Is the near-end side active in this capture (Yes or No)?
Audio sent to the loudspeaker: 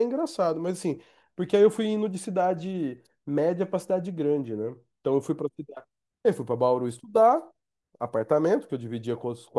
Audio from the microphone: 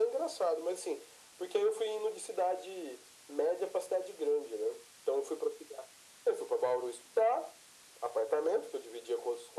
No